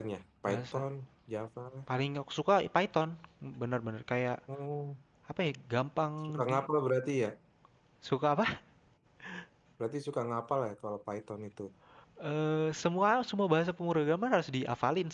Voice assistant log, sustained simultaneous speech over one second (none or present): none